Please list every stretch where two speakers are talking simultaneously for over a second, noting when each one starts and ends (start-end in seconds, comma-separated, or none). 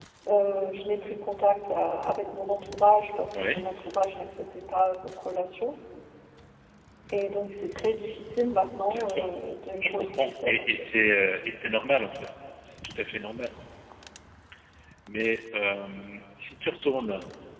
9.8-11.1